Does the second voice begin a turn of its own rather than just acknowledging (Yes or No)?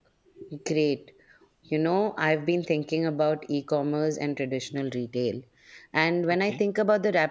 No